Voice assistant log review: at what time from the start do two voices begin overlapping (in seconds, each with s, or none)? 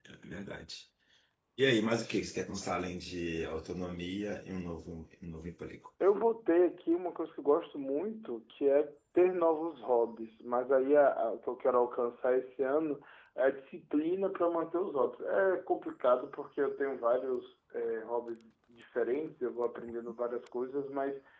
none